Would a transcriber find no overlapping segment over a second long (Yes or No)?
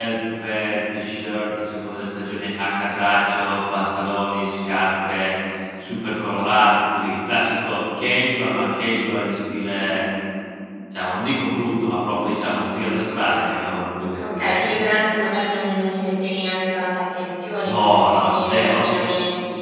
No